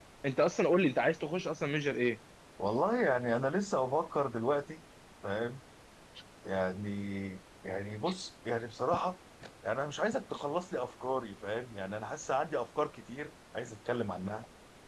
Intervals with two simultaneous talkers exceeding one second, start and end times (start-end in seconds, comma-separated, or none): none